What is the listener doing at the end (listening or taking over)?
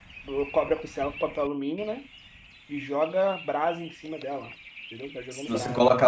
taking over